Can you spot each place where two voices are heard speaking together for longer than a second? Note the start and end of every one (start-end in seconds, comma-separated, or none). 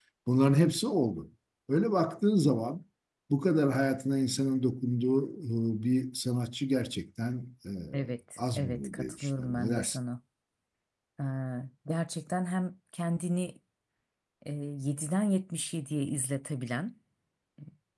8.6-10.0